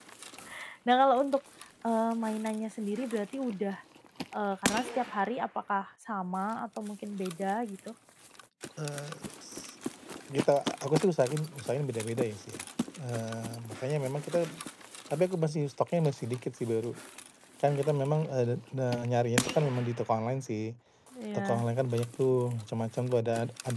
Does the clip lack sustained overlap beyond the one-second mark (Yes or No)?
Yes